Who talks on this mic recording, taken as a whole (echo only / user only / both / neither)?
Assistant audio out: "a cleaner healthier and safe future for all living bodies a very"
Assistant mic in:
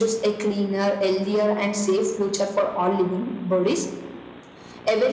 echo only